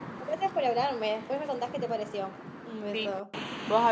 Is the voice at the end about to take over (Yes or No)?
Yes